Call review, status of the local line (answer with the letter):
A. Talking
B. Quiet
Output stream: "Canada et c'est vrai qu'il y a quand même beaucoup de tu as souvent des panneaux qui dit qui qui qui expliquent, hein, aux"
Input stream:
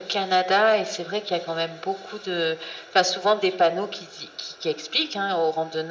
B